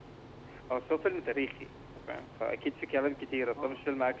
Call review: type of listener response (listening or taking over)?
taking over